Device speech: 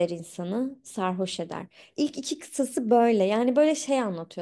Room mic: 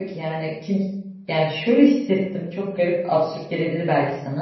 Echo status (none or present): none